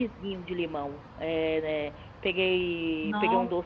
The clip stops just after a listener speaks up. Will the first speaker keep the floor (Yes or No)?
Yes